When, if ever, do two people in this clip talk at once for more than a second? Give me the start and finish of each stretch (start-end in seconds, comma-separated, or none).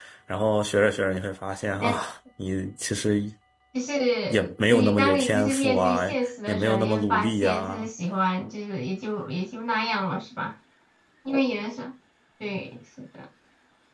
4.3-6.0, 6.5-7.9